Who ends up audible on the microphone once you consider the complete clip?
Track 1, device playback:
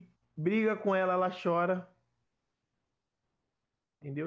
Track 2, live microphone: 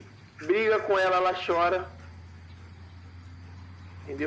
echo only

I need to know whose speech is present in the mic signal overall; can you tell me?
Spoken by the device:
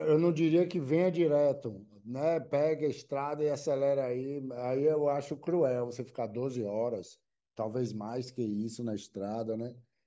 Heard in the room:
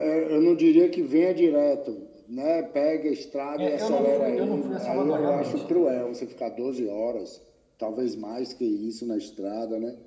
both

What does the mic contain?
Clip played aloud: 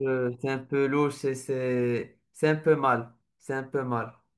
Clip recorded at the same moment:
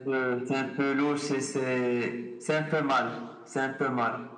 echo only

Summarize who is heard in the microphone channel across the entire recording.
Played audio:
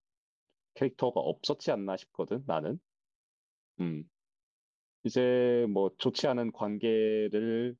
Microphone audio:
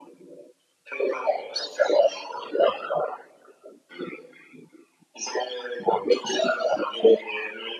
echo only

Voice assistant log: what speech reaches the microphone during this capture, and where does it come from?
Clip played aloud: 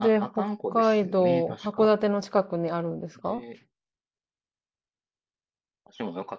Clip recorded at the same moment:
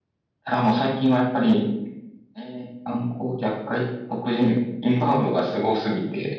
user only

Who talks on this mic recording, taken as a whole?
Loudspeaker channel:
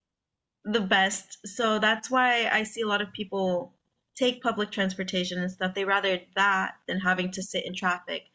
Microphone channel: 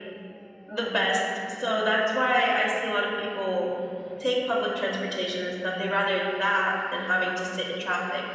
echo only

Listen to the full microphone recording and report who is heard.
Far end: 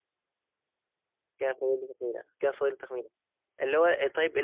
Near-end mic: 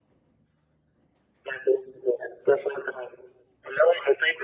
echo only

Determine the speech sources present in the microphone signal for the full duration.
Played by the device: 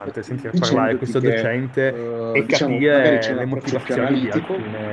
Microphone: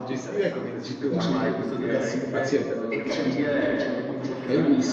both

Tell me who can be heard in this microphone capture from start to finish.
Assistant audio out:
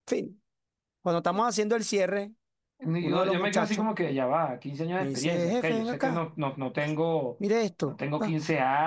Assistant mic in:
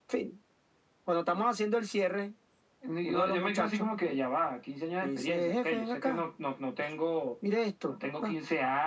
echo only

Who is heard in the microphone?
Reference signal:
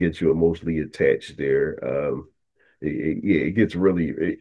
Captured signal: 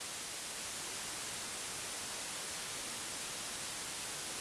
neither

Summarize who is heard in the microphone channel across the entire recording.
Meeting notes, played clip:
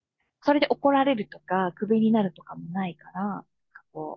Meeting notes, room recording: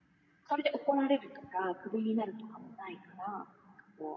echo only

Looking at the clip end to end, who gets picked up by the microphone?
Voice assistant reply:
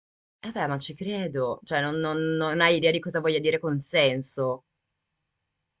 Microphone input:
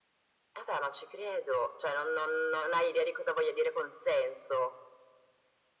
echo only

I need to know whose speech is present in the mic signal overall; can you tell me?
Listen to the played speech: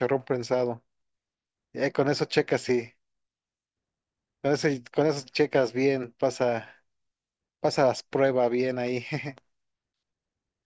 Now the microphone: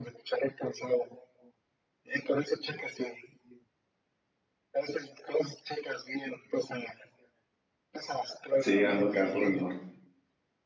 both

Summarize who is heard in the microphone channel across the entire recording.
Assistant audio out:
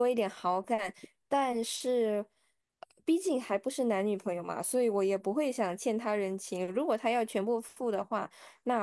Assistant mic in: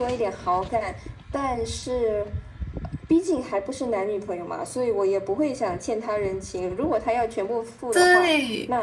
both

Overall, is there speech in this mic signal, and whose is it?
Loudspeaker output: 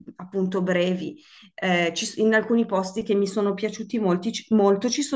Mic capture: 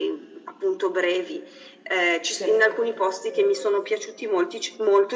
both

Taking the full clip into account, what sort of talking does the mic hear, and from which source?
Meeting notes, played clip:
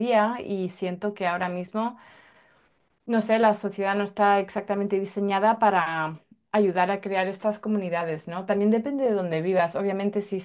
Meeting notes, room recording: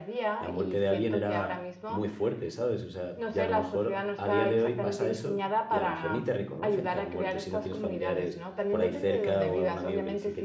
both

